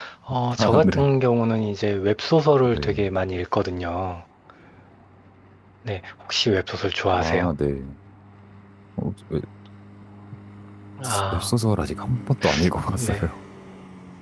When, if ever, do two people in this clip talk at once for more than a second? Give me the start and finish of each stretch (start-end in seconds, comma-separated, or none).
none